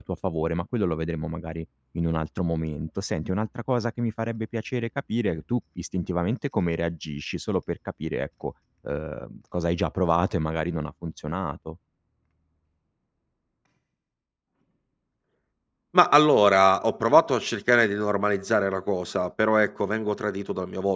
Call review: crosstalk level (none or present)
none